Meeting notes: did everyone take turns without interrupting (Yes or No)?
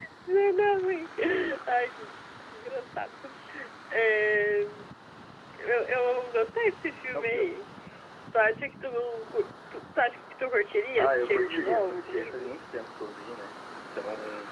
No